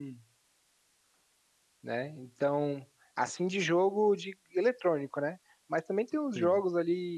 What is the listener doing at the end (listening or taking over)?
listening